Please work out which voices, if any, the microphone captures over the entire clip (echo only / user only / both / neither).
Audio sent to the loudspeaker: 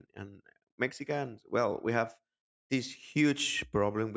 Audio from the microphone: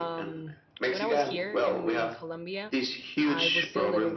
both